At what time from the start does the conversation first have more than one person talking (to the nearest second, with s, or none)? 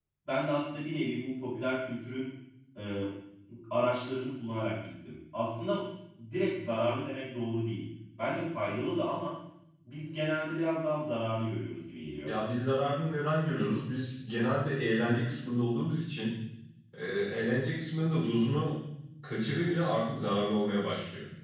none